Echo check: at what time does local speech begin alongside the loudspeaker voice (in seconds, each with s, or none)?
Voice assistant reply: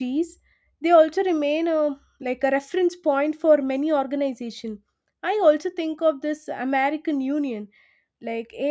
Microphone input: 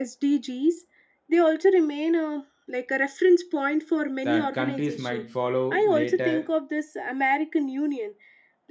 4.2 s